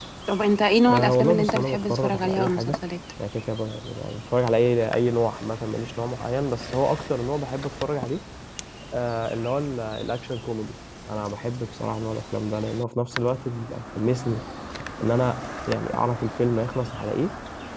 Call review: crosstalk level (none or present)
present